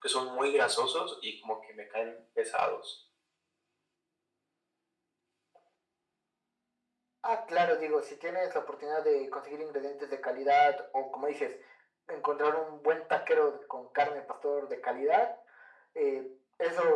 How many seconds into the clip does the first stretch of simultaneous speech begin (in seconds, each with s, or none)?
none